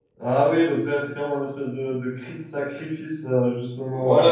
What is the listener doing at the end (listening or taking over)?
taking over